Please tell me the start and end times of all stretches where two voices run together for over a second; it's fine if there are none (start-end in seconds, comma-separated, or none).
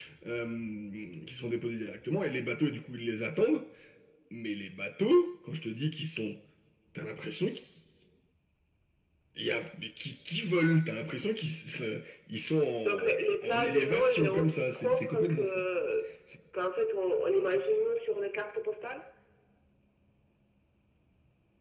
13.4-15.5